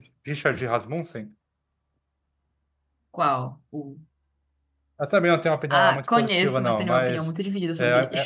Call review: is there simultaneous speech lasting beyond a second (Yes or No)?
Yes